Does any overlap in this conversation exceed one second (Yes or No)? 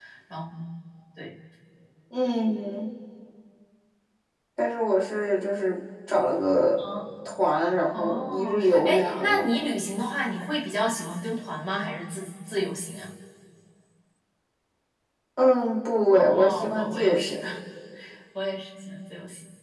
Yes